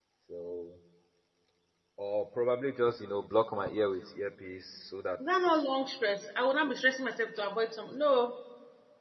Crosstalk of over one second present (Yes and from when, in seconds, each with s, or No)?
No